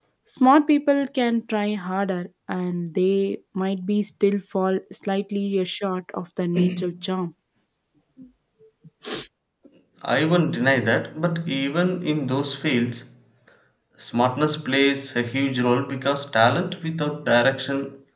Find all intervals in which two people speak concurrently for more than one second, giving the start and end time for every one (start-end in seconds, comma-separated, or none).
none